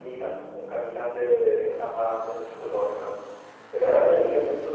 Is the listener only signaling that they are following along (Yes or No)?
Yes